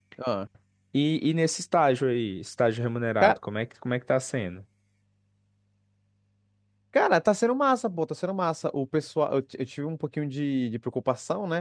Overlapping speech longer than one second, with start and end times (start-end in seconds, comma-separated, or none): none